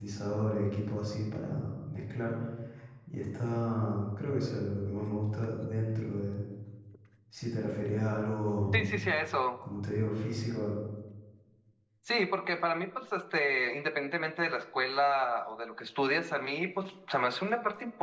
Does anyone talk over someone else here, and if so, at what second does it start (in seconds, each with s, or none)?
none